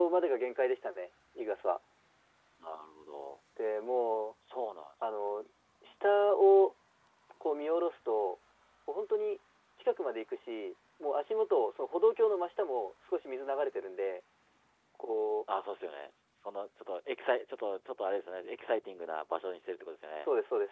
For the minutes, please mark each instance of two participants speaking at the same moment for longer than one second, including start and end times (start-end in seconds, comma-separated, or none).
none